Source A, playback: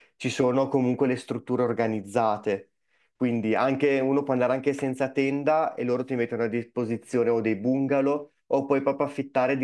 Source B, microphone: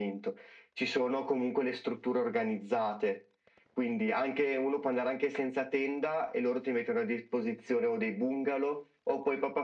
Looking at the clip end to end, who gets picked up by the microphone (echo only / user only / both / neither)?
echo only